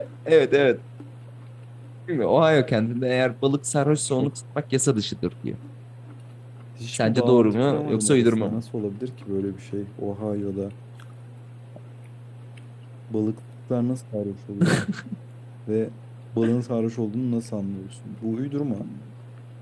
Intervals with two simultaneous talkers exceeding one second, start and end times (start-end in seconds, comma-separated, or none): 6.9-8.6